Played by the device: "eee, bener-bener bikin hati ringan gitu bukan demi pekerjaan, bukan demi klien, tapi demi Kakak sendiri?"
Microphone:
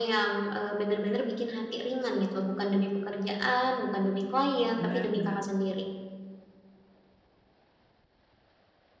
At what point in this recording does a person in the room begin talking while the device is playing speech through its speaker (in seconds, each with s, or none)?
4.8 s